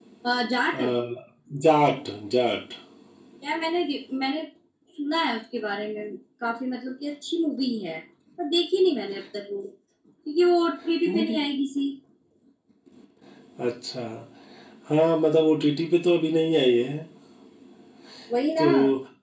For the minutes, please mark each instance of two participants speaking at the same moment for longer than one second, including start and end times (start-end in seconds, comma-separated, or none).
none